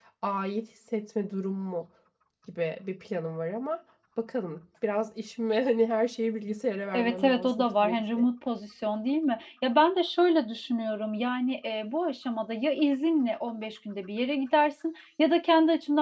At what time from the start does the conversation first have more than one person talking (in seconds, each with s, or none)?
6.9 s